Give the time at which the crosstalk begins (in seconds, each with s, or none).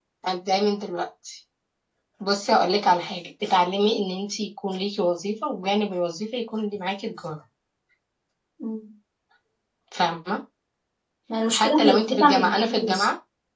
11.5 s